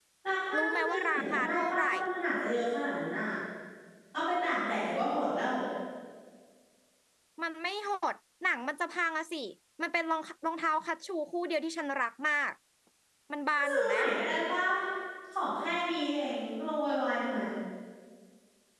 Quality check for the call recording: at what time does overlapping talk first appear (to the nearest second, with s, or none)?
1 s